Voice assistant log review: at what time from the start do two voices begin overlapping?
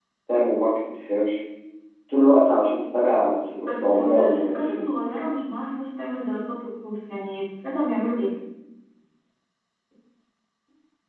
3.6 s

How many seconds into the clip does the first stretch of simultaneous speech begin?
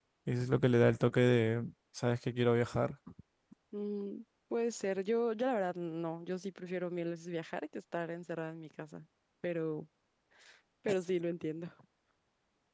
none

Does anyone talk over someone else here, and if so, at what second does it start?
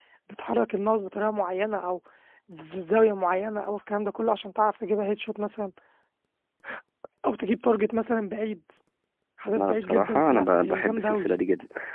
9.6 s

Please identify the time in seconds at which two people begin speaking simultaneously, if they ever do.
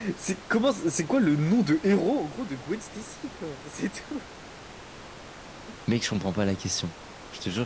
none

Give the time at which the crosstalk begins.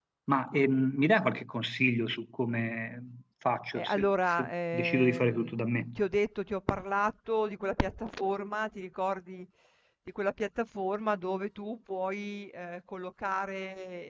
3.8 s

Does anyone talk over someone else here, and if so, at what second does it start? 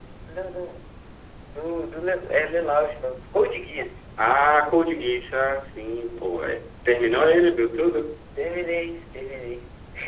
none

